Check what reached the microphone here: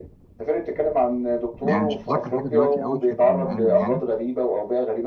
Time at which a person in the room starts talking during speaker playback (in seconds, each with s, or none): 1.7 s